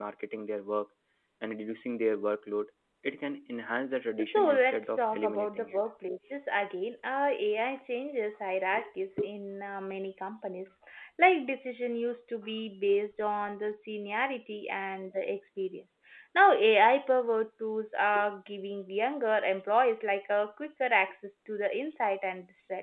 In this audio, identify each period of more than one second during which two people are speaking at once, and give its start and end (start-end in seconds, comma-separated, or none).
4.3-5.8